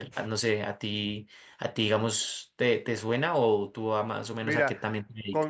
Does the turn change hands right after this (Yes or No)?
Yes